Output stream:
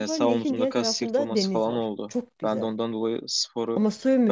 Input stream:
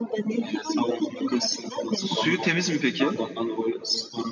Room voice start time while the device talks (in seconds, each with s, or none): 1.9 s